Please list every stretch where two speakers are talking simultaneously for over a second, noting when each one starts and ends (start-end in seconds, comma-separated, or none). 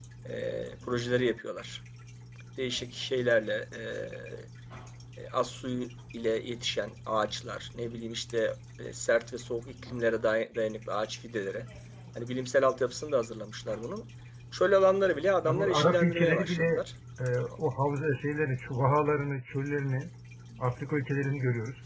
15.4-16.8